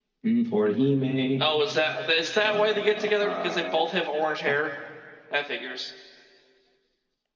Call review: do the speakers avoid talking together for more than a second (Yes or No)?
No